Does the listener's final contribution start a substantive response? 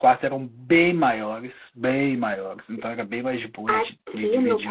Yes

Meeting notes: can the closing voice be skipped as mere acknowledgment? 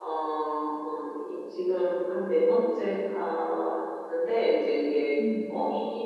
Yes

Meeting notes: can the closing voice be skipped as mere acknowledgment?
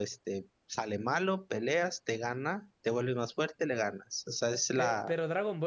No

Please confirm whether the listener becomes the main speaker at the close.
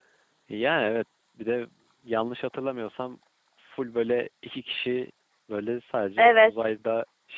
No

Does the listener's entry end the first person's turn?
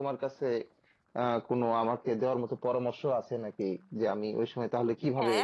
Yes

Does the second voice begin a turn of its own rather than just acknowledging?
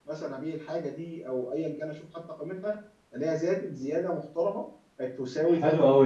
Yes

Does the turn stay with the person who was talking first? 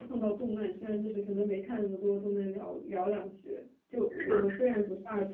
Yes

